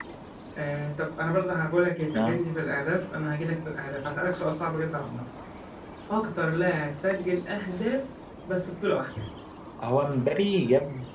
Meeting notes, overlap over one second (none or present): none